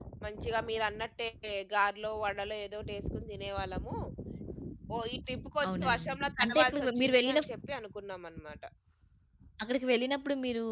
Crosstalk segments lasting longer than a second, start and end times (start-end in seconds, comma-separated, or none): 5.7-7.4